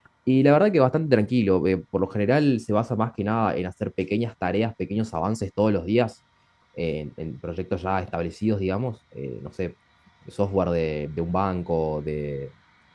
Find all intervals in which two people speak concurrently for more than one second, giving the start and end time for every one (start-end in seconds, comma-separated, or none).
none